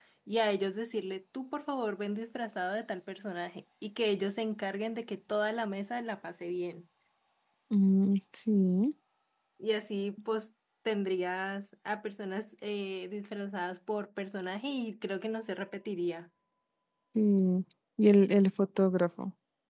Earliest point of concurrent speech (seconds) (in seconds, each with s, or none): none